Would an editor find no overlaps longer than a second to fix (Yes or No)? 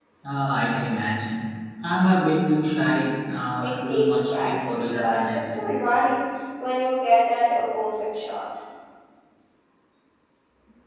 No